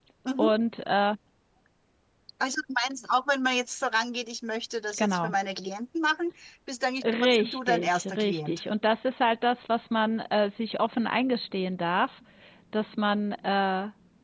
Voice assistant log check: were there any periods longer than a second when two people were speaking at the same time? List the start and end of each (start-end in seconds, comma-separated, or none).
7.0-8.6